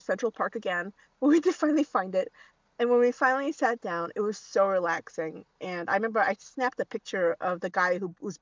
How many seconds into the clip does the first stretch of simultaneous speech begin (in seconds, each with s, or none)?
none